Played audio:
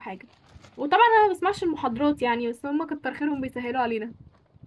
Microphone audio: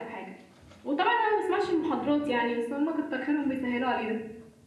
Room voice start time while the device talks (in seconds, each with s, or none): none